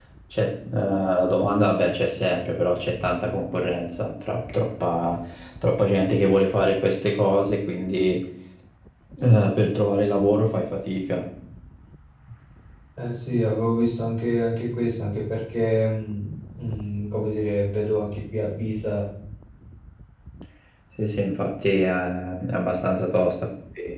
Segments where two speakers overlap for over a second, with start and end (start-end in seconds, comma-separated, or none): none